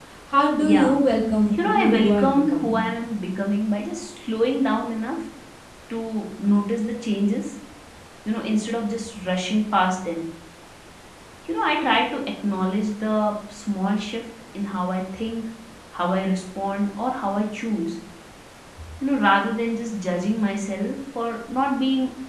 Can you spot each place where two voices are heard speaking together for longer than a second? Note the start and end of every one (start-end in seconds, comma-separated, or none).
1.6-2.9